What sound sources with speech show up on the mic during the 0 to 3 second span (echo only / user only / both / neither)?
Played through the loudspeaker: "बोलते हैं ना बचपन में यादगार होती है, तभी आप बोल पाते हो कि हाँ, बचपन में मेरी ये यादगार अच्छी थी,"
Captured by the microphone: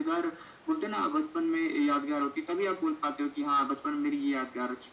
echo only